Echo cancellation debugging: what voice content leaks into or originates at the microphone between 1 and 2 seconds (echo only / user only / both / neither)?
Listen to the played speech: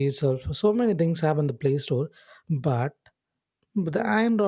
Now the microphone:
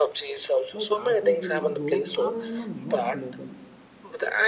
both